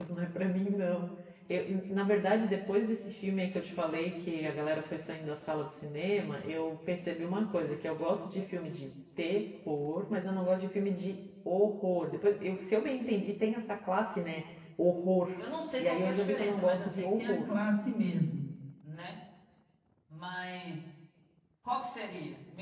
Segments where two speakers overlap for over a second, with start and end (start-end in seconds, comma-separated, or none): 15.8-17.4